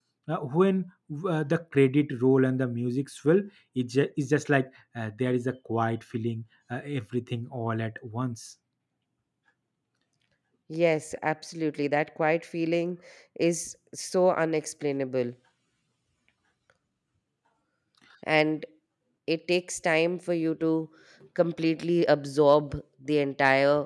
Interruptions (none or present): none